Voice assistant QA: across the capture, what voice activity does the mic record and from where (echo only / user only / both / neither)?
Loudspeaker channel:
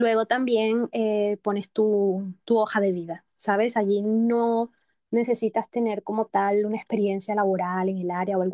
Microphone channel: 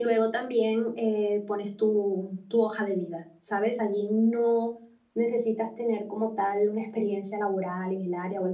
echo only